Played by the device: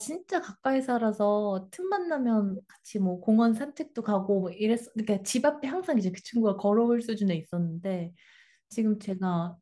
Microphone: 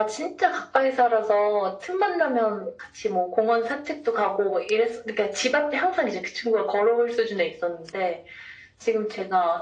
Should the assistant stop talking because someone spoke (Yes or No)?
No